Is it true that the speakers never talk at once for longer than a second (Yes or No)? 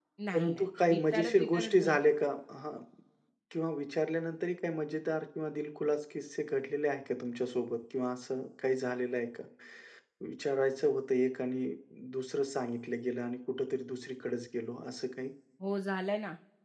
No